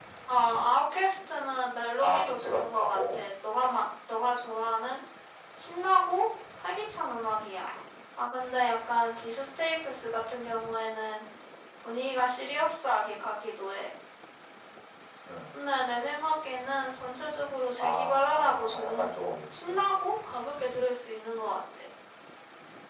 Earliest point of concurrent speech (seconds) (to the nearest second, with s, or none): 2 s